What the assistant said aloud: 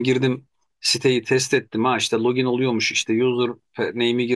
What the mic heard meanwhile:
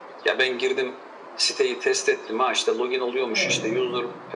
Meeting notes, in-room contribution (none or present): present